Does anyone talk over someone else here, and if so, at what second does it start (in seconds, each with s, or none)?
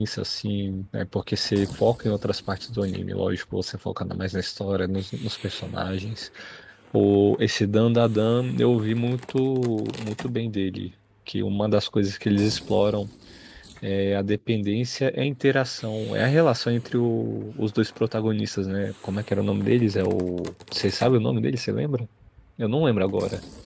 none